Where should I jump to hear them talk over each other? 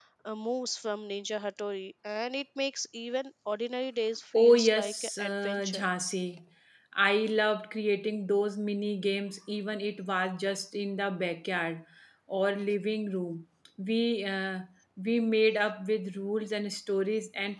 4.3 s

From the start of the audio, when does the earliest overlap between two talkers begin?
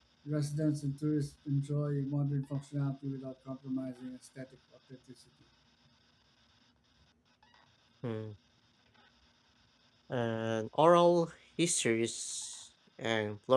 none

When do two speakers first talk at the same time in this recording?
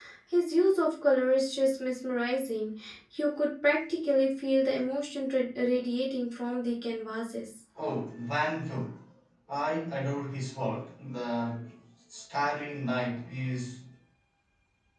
none

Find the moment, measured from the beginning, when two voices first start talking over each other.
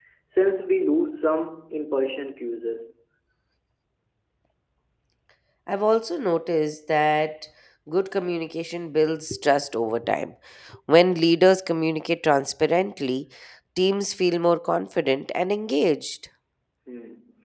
none

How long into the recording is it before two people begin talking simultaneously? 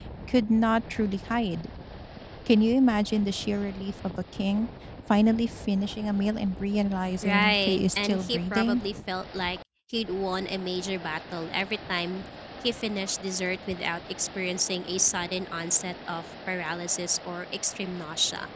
7.2 s

